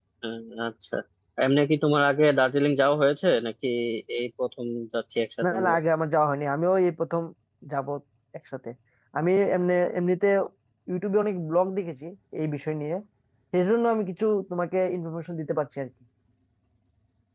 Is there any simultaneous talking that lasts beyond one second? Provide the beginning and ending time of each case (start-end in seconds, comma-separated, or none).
none